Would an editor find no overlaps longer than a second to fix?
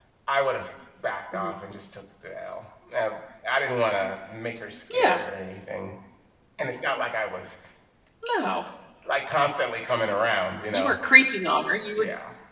Yes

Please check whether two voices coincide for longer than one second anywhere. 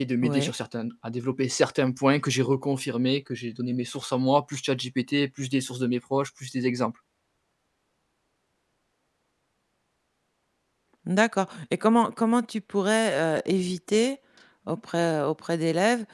No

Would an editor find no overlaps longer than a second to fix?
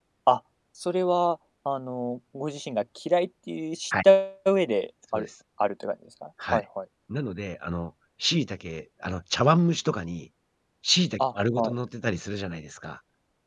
Yes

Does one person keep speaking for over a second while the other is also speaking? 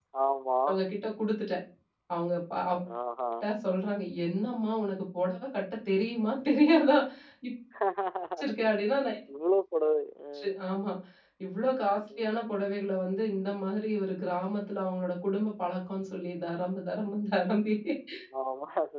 No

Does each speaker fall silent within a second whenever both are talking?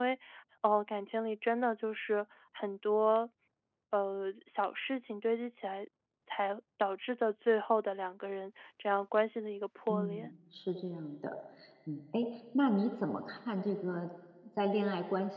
Yes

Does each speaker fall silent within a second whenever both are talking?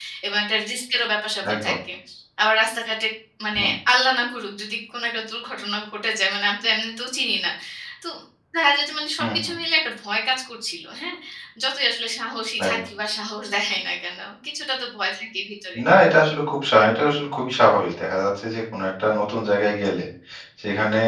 Yes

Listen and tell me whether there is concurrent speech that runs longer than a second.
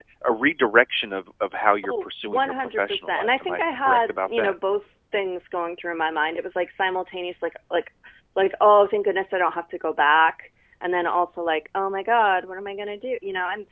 Yes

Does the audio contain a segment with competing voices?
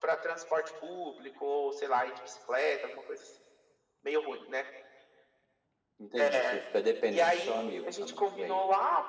Yes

